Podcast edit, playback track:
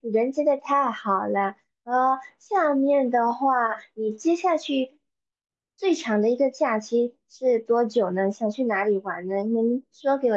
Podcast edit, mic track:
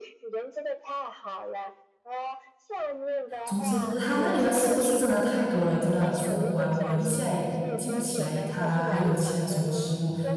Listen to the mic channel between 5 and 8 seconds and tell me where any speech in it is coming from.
both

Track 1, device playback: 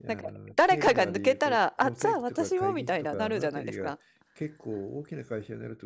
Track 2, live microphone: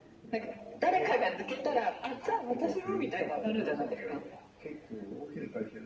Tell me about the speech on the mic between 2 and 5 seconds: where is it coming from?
echo only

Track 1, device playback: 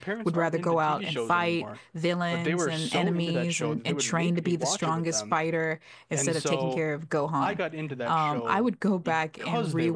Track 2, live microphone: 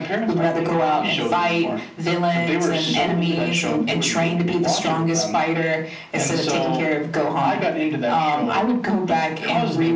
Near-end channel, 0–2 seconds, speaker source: echo only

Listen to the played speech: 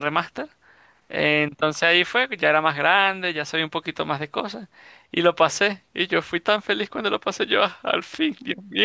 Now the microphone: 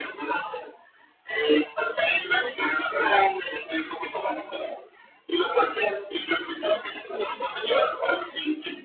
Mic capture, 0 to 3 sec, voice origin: echo only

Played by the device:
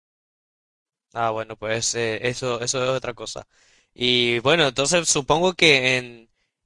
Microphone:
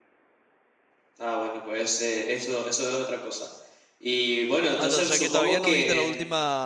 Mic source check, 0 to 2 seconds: echo only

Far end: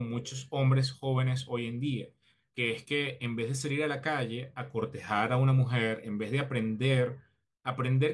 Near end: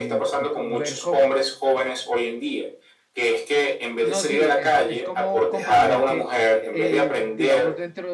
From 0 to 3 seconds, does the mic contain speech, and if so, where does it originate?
both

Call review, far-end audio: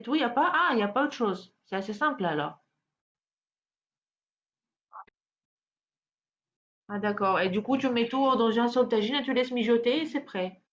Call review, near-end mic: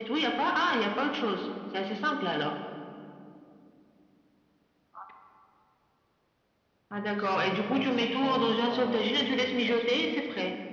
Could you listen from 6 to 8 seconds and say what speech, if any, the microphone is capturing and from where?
both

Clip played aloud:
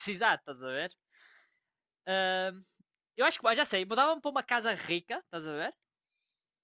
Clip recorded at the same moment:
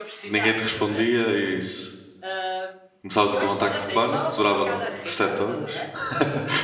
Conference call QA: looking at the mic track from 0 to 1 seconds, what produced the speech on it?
both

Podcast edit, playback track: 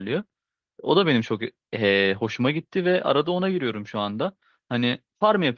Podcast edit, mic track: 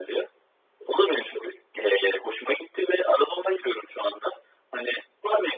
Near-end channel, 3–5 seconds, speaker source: echo only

